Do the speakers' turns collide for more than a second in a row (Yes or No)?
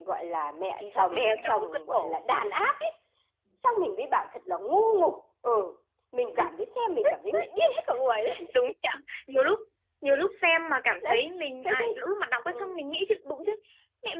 Yes